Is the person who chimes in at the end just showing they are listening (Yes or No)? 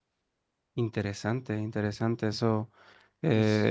Yes